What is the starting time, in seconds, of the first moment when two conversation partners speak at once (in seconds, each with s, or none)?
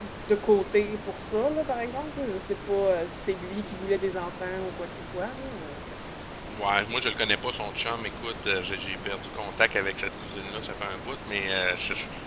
none